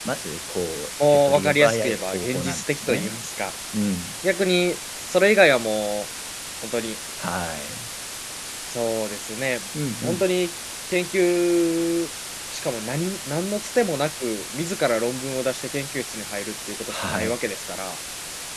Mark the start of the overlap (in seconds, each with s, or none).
1.1 s